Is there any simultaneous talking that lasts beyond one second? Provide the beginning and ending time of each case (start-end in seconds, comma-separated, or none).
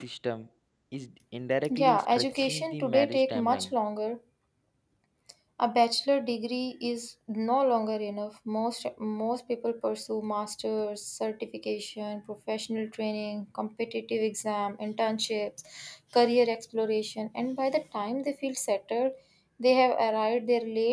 1.7-3.7